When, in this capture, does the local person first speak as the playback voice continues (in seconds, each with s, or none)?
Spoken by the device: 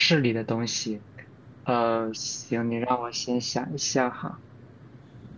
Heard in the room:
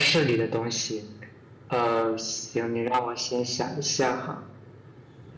none